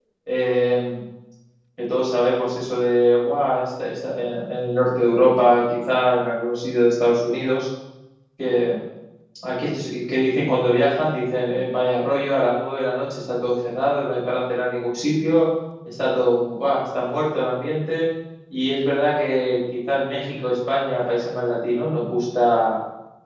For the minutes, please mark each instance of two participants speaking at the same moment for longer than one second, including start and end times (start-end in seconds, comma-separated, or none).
none